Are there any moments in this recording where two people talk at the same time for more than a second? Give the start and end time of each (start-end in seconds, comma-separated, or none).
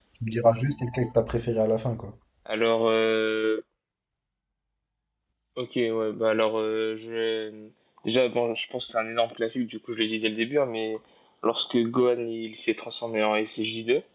none